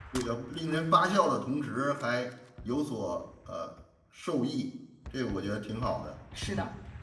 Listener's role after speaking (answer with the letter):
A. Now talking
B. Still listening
A